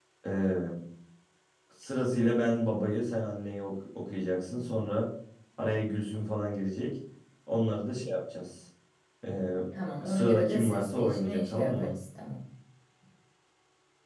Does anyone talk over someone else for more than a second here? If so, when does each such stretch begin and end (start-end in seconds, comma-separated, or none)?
10.1-11.9